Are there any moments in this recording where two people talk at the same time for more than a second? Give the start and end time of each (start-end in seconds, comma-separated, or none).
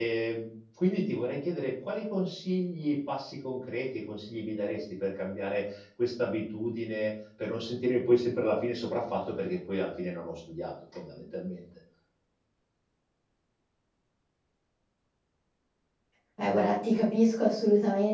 none